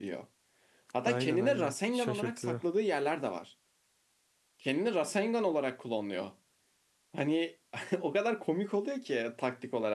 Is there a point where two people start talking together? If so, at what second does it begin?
1.1 s

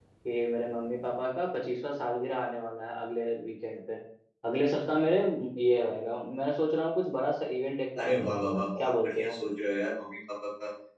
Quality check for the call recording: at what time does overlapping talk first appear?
8.0 s

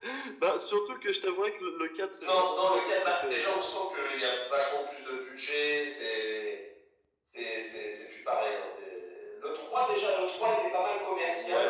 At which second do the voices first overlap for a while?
2.2 s

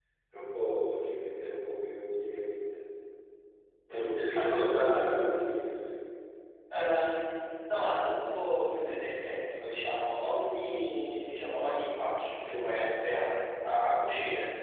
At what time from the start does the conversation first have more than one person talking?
3.9 s

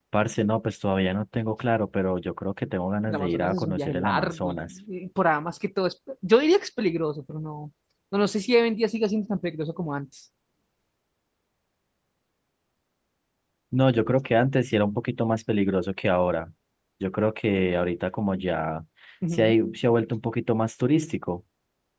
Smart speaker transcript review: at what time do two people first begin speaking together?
3.1 s

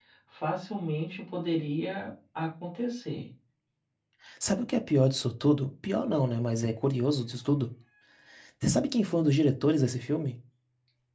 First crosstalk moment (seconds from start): none

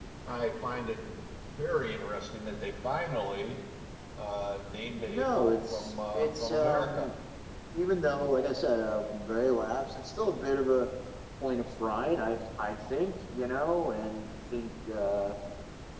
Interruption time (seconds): 5.0 s

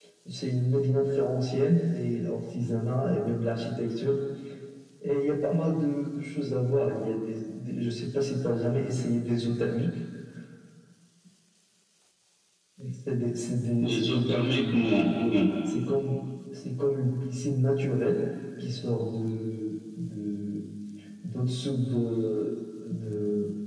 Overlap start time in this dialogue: 13.8 s

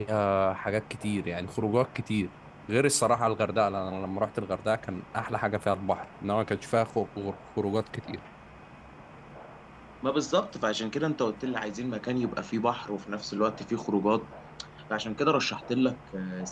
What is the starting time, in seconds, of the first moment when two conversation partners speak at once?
none

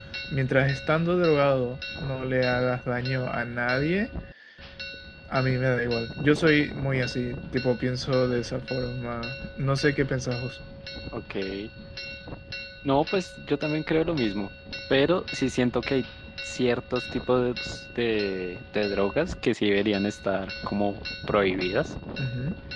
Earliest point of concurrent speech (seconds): none

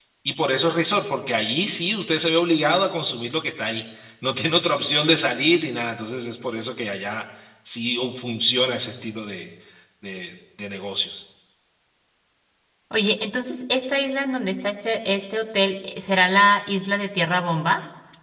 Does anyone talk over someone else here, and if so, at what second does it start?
none

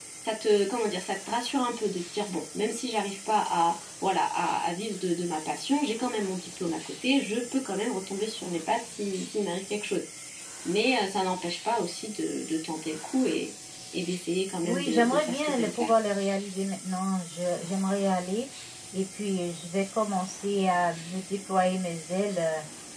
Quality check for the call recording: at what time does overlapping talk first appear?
14.6 s

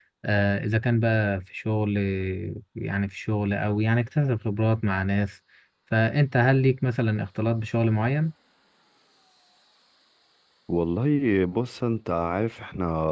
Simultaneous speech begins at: none

